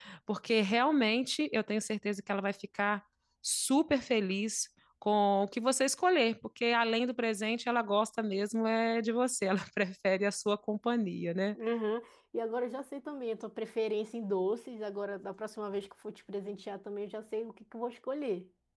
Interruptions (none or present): none